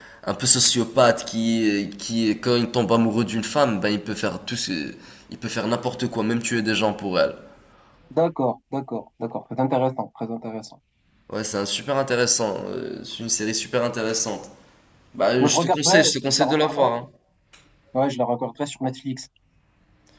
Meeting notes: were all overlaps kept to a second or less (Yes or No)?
No